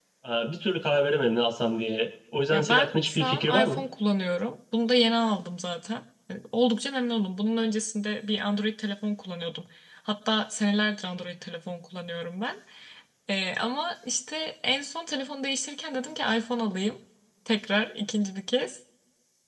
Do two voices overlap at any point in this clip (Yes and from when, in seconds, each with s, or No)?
Yes, from 2.5 s